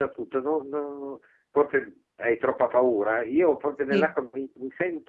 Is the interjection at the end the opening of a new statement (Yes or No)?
No